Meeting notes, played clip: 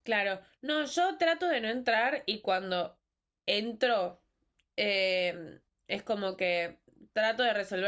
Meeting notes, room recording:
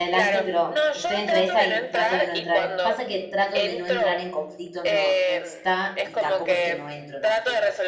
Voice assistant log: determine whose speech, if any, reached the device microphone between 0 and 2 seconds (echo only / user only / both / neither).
both